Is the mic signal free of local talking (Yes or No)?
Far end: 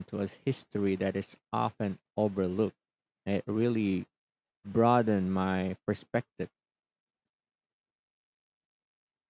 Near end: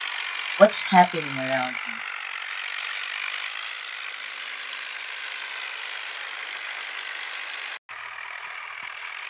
No